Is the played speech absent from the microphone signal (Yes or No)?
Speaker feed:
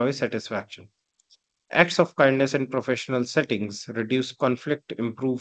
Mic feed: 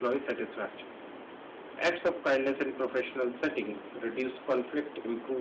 No